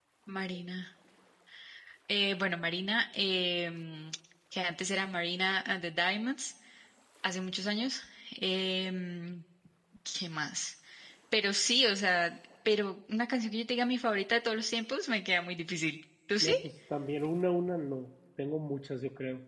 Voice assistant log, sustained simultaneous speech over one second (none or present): none